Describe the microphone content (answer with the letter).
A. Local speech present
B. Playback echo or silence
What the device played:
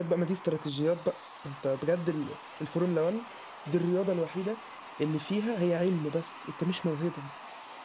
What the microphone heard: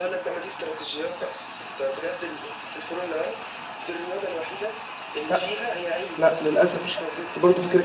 A